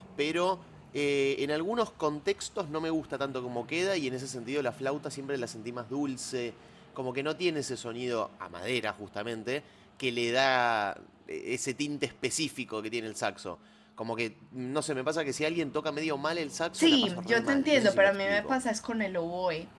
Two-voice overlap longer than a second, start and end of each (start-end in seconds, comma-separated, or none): 16.8-18.5